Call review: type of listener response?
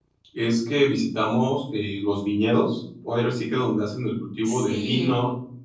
listening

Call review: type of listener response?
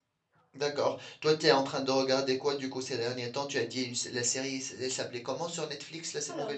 taking over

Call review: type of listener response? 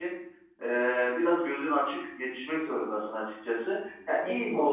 listening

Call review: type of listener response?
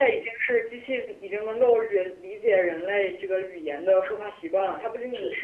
listening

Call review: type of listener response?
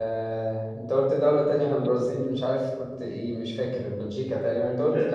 taking over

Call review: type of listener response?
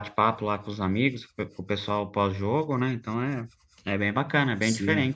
taking over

